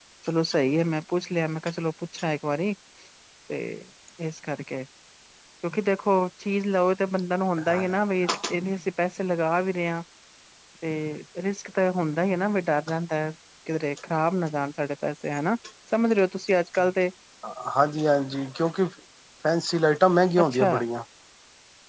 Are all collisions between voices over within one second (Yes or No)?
Yes